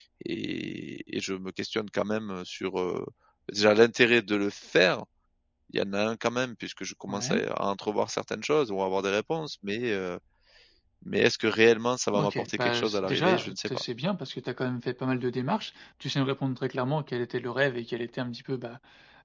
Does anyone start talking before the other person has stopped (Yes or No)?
Yes